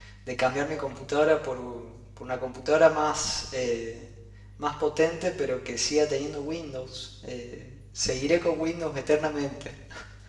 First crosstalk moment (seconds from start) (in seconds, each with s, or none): none